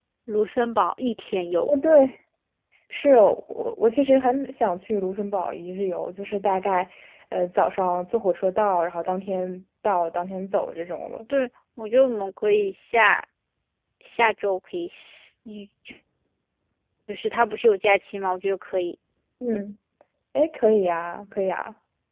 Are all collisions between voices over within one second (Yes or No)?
Yes